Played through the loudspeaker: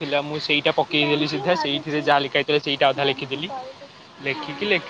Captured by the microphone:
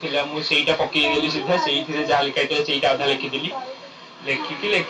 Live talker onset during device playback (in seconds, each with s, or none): none